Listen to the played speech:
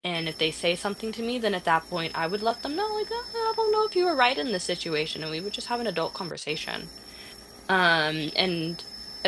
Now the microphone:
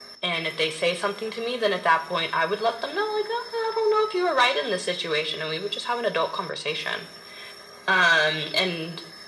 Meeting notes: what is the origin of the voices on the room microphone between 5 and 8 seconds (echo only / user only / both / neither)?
echo only